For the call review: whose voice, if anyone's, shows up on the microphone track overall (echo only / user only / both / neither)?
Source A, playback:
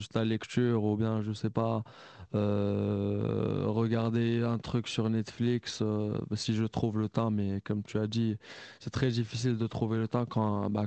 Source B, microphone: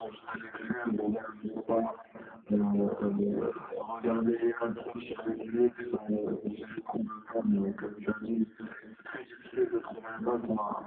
echo only